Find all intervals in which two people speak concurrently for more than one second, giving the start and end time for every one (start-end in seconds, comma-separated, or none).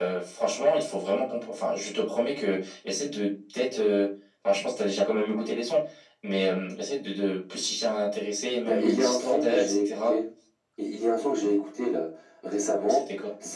8.6-10.2